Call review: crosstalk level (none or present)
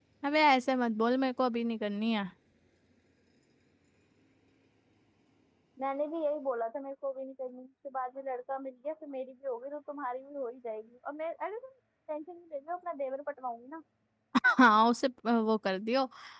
none